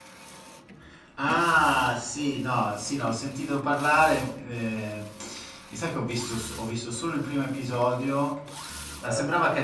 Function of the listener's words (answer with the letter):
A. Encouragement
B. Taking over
A